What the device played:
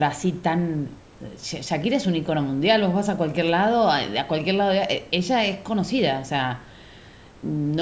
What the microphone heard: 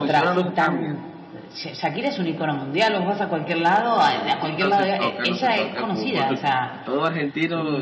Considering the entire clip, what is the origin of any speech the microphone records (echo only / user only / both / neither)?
both